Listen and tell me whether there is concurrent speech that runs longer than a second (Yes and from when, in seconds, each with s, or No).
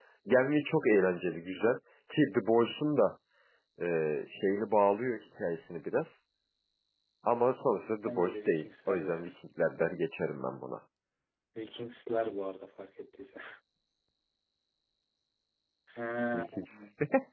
Yes, from 8.0 s